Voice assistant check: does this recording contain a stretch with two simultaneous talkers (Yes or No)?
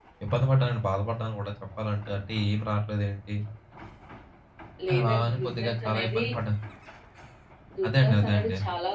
Yes